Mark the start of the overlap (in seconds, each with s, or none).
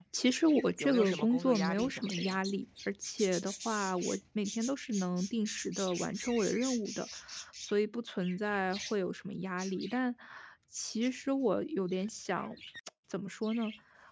0.8 s